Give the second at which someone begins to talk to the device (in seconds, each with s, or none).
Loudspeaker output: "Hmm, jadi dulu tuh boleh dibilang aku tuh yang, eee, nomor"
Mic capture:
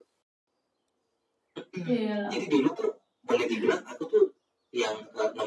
1.8 s